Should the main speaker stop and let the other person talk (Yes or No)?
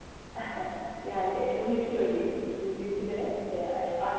No